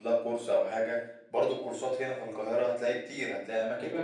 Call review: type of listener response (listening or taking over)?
listening